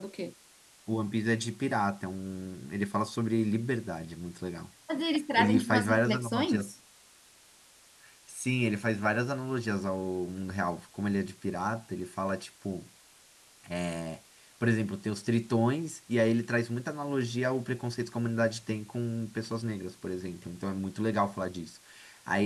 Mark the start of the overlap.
5.4 s

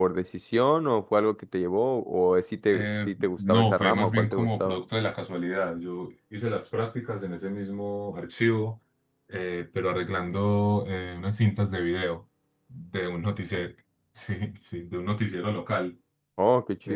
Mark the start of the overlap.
2.7 s

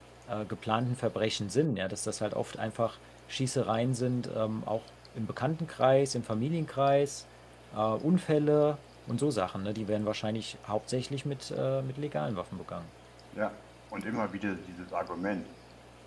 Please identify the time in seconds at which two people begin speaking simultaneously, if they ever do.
none

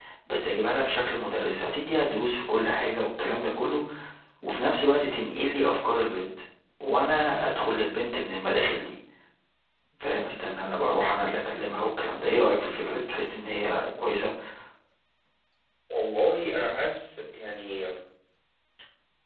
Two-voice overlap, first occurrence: none

